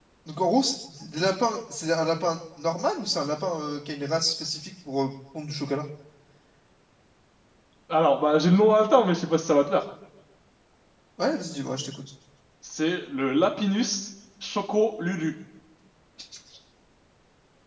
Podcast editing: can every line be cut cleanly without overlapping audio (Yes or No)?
Yes